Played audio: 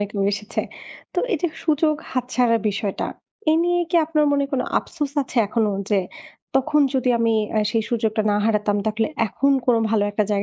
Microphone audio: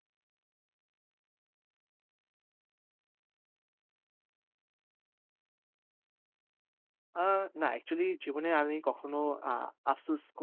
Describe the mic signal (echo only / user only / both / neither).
user only